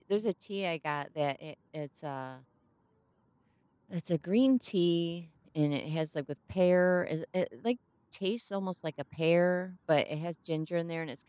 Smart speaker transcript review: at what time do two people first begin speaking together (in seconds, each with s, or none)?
none